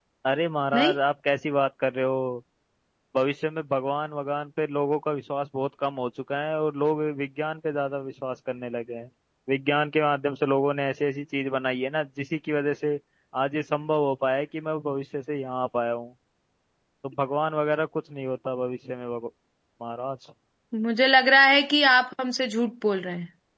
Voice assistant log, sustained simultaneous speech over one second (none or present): none